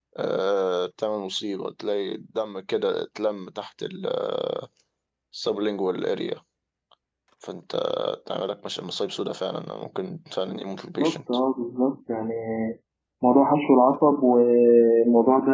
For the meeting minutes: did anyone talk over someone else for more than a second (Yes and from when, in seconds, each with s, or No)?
No